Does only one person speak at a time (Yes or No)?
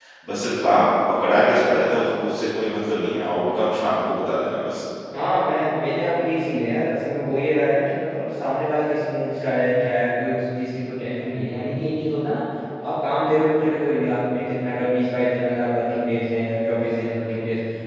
Yes